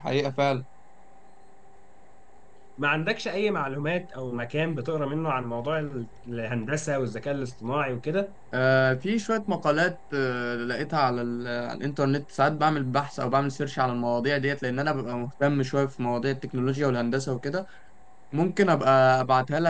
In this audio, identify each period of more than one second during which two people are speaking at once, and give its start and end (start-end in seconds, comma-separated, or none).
none